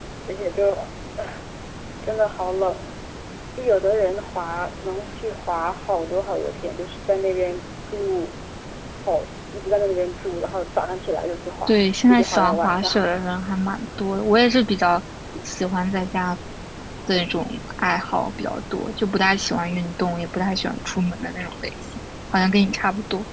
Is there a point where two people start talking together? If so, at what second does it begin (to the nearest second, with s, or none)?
12 s